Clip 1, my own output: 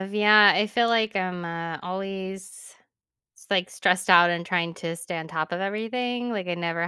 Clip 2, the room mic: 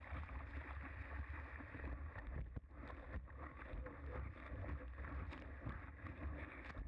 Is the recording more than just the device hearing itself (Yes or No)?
No